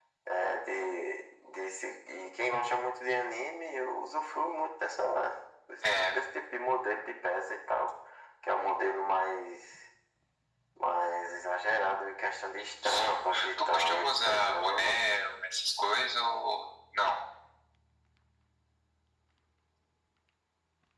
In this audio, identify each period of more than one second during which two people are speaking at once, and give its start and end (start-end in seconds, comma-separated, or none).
12.8-15.0